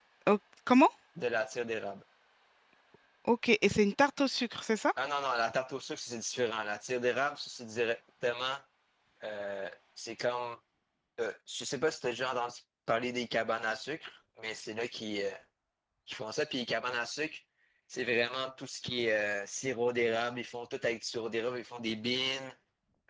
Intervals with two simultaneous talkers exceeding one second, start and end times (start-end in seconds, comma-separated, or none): none